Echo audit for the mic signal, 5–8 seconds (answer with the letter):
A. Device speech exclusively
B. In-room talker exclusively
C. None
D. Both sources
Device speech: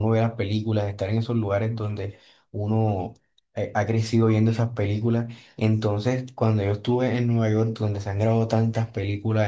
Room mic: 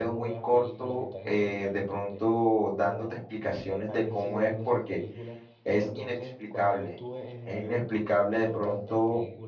D